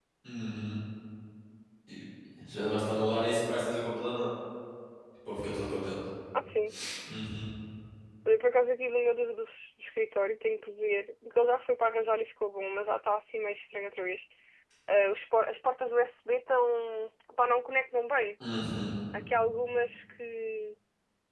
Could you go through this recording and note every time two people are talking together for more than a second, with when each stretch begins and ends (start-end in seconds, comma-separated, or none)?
none